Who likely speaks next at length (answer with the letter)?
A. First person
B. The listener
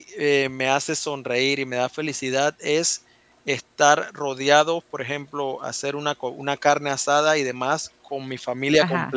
A